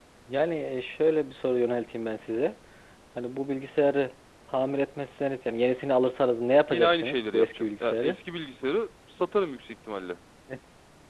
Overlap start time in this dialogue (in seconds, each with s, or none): 6.7 s